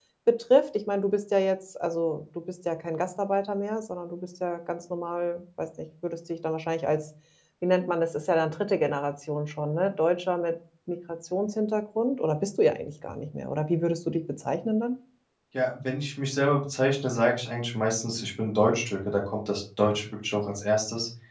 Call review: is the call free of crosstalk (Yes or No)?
Yes